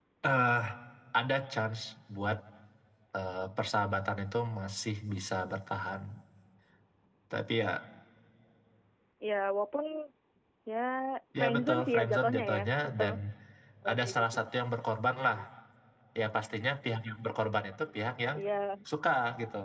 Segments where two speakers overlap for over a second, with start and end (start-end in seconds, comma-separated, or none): 11.4-13.0